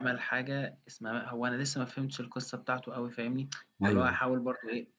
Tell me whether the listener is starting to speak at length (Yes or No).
No